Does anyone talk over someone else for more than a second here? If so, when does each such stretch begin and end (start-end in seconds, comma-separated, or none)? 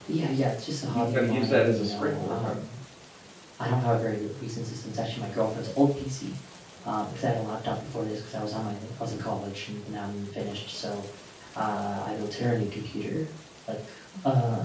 0.9-2.5